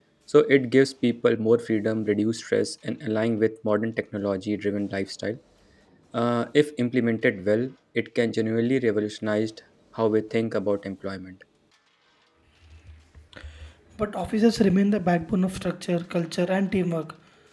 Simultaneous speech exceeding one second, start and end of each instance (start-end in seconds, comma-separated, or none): none